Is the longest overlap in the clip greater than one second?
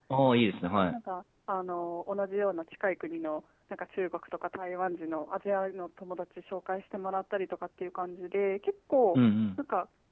No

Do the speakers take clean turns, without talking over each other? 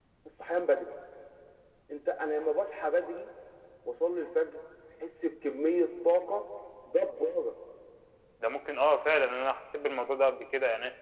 Yes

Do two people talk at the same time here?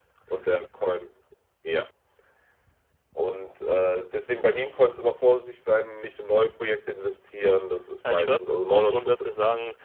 Yes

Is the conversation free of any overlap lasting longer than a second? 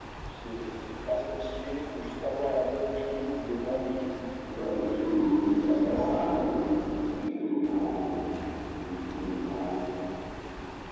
No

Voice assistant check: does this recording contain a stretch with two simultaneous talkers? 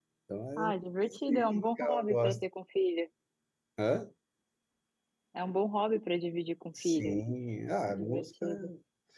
Yes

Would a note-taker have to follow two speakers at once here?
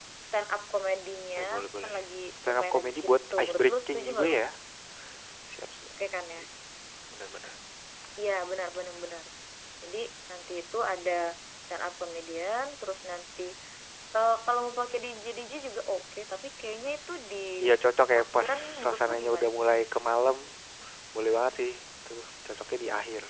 Yes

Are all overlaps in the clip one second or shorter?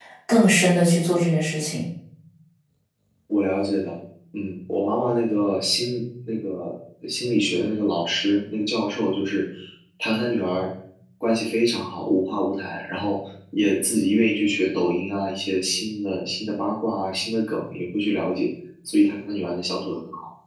Yes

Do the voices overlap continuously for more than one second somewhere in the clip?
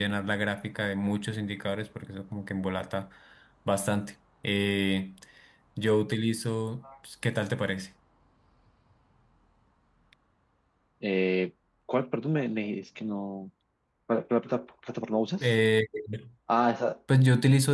No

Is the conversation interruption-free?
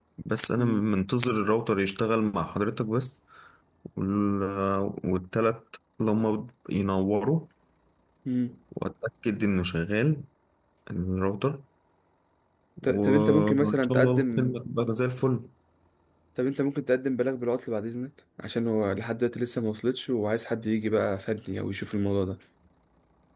No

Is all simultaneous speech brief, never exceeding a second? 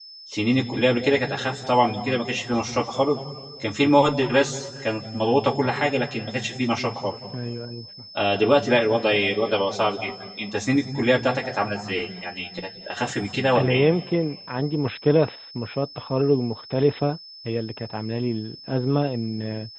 Yes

